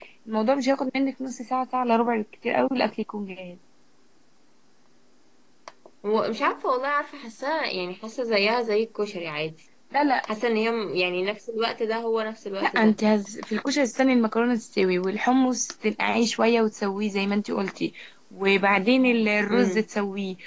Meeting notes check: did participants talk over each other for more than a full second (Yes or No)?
No